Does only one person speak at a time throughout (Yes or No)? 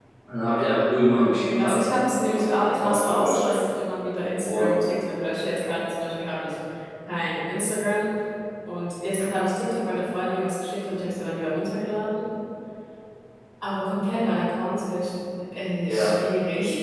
No